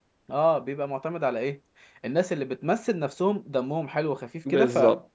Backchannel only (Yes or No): No